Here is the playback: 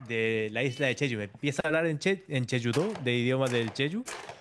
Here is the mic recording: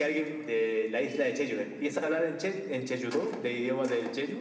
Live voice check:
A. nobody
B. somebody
A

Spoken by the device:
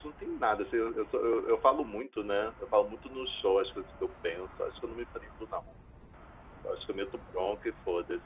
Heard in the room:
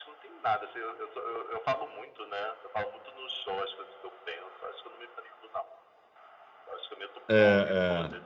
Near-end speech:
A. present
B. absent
A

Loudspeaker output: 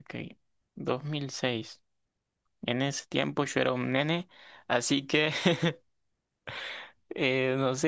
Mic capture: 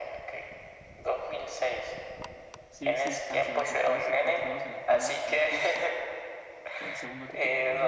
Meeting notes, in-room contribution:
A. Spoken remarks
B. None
A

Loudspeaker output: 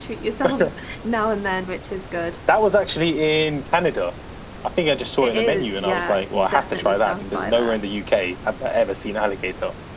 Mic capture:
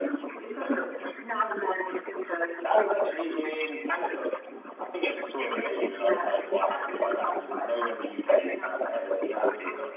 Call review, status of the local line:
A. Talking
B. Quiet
A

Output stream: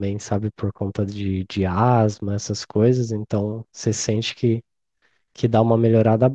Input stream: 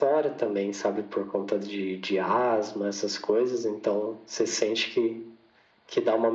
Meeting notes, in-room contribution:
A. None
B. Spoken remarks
A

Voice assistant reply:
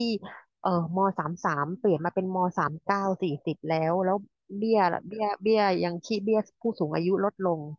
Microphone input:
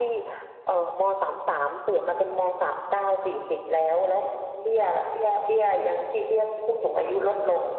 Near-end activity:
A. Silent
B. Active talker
A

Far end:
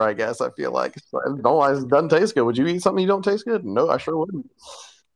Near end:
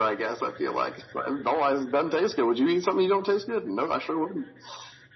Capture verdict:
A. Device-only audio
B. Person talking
A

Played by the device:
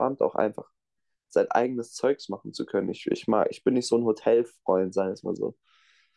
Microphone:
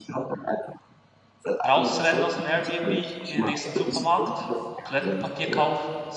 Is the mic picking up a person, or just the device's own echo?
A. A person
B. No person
A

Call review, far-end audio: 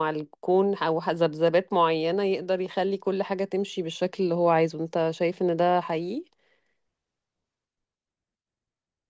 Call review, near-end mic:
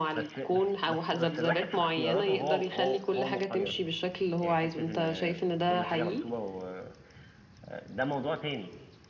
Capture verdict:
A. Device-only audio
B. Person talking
B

